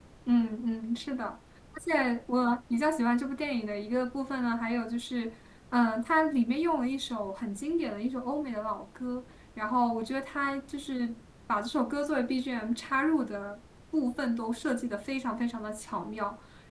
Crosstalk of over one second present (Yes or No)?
No